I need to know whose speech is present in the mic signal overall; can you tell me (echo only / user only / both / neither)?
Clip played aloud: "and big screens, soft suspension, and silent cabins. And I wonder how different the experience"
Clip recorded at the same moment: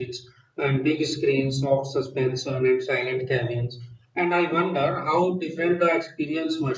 echo only